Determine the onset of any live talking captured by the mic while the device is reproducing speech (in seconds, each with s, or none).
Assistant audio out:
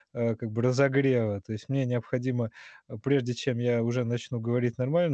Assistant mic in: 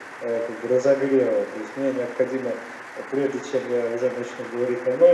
none